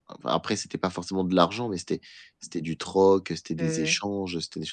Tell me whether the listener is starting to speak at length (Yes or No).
No